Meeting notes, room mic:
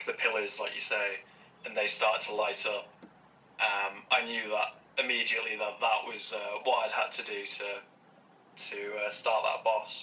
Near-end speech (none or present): none